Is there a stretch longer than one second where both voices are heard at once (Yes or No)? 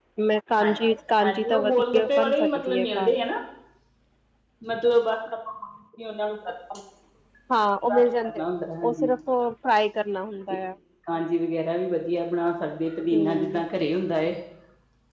Yes